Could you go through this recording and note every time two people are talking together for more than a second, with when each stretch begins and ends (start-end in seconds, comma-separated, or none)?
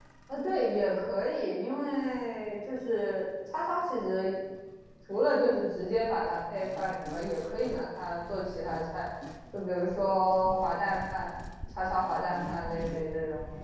none